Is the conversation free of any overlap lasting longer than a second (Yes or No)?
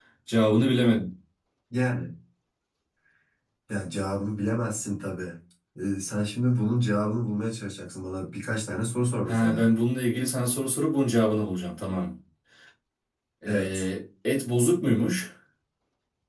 Yes